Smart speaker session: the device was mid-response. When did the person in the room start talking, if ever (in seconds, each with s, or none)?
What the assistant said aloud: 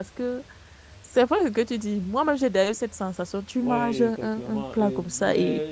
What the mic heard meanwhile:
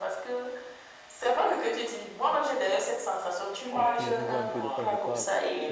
3.8 s